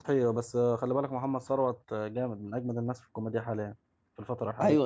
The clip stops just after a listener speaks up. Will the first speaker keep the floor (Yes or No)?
No